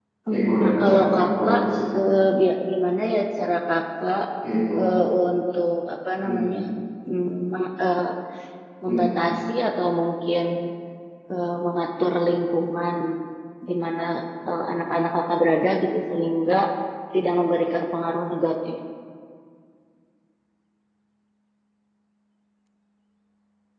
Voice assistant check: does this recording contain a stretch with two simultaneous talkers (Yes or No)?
Yes